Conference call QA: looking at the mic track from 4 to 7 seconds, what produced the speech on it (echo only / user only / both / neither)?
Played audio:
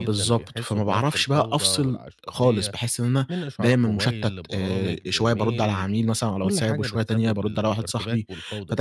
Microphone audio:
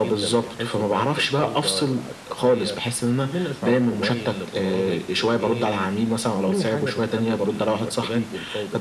echo only